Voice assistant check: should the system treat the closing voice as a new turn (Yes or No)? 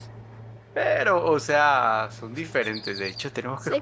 No